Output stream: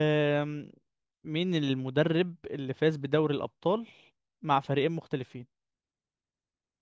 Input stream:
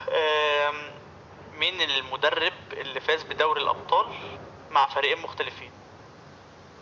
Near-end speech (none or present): none